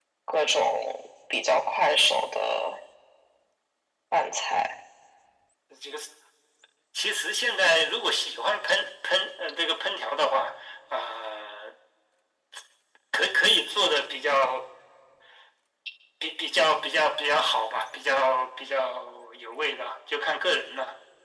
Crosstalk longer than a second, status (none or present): none